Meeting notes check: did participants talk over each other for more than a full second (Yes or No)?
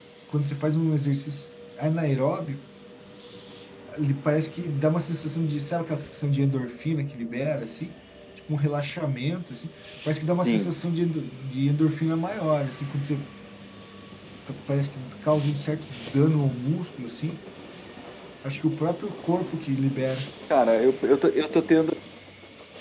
No